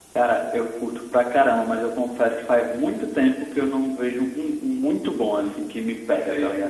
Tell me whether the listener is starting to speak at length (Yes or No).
Yes